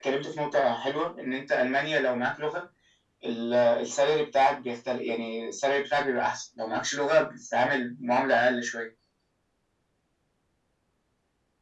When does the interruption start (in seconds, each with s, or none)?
none